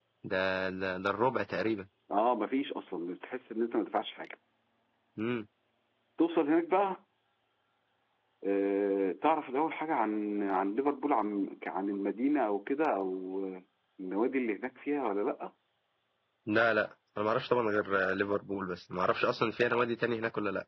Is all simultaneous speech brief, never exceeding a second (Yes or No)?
Yes